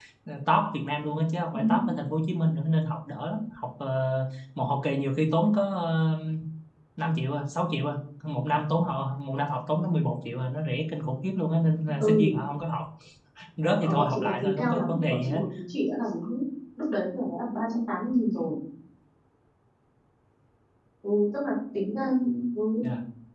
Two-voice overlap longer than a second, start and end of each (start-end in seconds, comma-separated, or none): 13.8-15.4